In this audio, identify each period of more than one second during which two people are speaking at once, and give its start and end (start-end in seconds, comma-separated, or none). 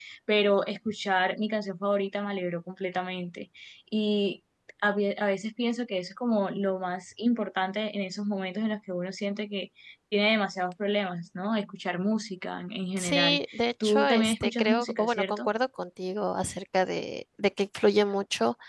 13.0-15.5